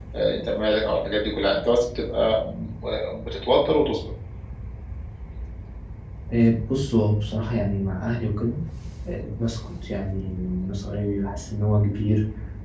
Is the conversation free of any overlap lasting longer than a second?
Yes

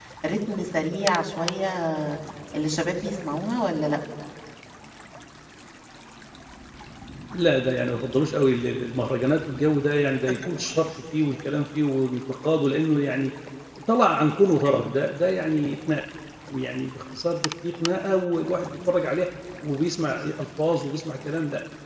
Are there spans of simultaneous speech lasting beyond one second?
No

